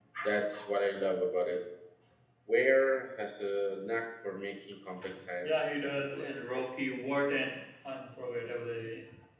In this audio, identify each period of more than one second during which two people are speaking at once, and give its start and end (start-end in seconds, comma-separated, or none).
5.4-6.7